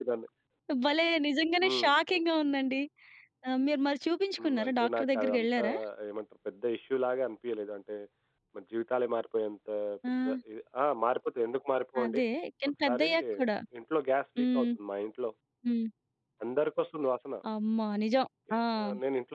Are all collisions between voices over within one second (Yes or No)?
No